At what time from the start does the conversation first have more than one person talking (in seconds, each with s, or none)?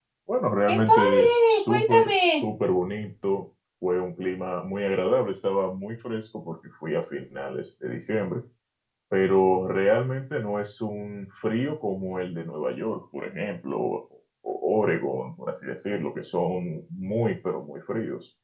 0.7 s